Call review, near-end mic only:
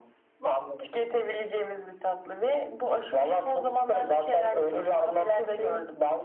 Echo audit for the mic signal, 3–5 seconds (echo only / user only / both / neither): echo only